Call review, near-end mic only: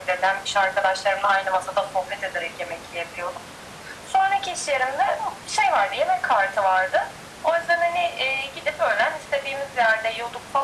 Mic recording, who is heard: echo only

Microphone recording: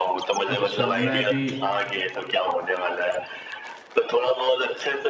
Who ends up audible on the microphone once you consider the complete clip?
both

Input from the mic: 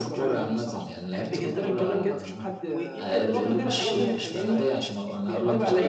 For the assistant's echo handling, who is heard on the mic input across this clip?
both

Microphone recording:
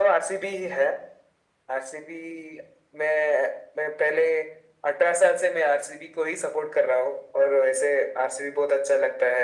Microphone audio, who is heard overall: echo only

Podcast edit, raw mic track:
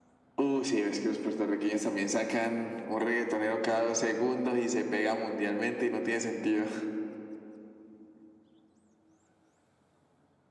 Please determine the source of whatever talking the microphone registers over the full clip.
echo only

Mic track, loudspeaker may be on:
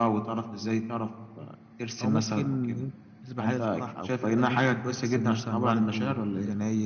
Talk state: both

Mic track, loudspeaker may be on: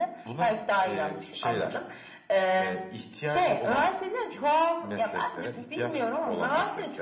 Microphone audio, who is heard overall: echo only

